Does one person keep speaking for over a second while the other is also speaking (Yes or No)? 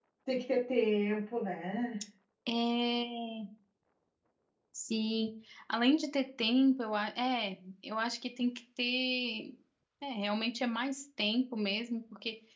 No